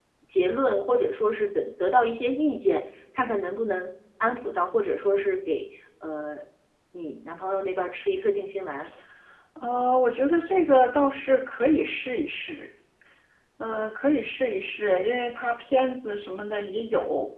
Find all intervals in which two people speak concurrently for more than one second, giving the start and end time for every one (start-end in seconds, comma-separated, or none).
none